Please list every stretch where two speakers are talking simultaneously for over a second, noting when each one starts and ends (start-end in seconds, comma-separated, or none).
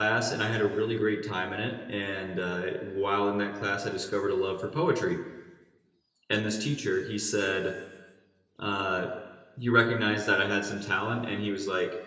none